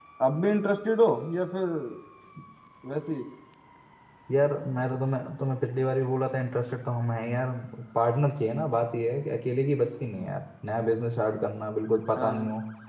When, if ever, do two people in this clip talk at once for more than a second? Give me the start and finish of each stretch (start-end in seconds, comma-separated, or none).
none